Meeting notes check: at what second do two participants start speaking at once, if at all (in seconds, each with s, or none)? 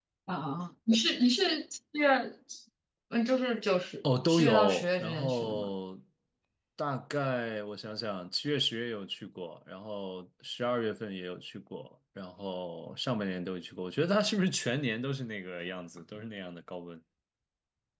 4.0 s